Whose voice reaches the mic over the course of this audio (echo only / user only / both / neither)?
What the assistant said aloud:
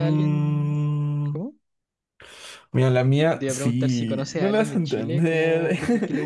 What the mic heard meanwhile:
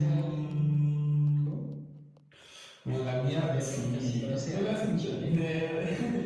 echo only